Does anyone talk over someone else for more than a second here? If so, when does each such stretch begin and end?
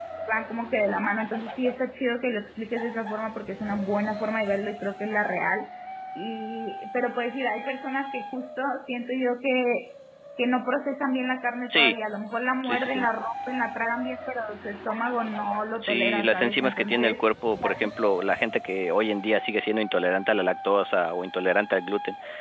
15.8-17.3

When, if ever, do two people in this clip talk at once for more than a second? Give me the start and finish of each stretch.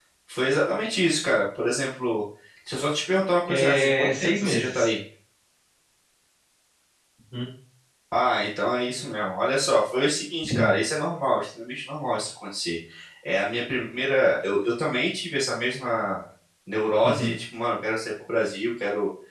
3.5-4.9

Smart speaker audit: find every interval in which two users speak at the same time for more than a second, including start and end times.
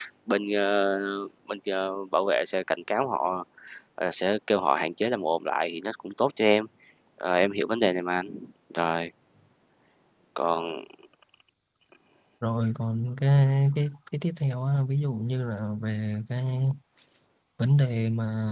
none

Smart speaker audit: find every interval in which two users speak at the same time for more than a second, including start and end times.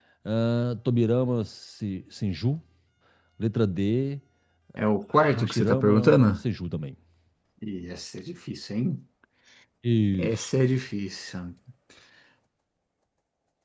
5.1-6.4

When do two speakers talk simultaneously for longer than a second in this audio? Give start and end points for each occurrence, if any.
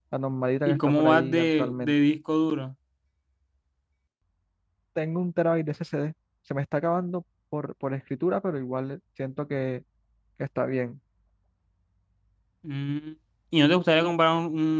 0.7-1.9

